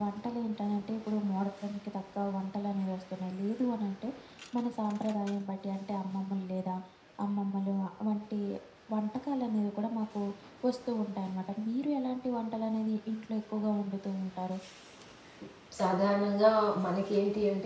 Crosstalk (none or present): none